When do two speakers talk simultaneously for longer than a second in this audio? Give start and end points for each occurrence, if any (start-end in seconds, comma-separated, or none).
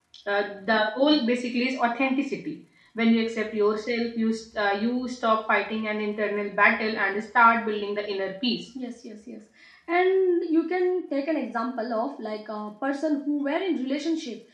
none